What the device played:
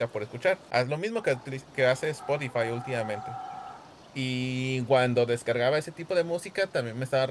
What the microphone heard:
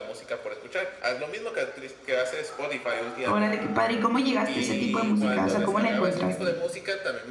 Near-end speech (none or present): present